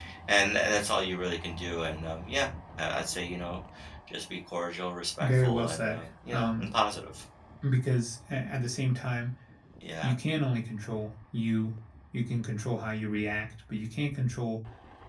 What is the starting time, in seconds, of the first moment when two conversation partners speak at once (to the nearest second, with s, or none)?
5 s